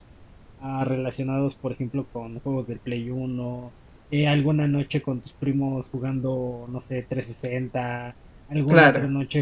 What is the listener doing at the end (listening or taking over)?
listening